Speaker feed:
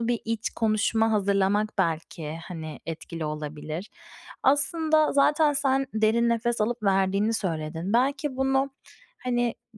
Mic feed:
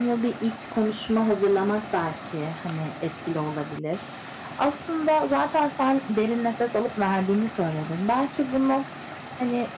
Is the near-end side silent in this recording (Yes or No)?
Yes